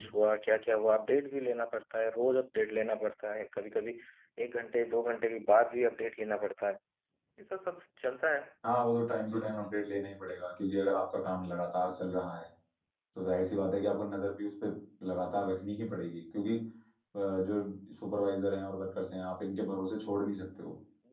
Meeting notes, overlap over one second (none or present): none